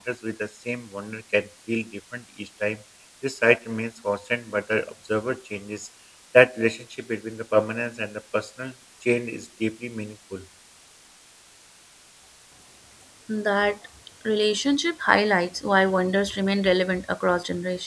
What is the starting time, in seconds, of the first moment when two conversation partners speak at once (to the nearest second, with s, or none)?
none